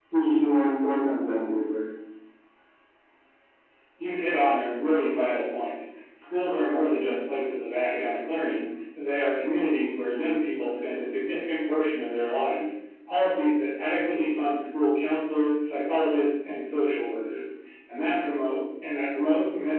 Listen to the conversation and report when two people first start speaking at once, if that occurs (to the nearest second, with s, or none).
none